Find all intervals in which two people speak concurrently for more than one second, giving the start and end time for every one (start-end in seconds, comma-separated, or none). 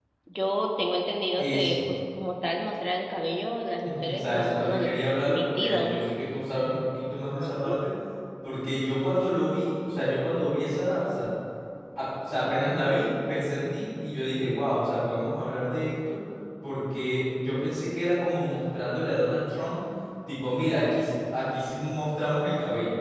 3.8-5.9